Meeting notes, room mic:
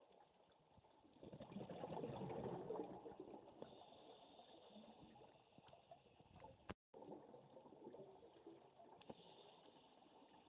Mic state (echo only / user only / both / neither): neither